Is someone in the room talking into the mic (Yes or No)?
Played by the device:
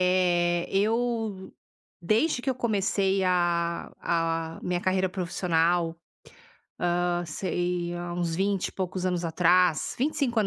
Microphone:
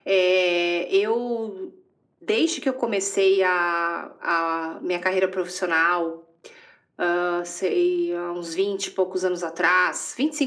No